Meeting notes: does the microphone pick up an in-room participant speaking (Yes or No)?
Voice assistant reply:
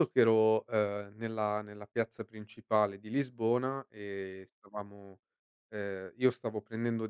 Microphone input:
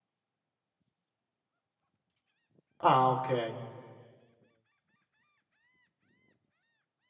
Yes